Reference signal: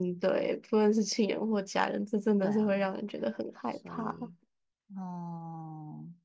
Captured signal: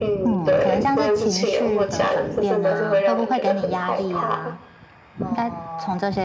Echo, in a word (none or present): present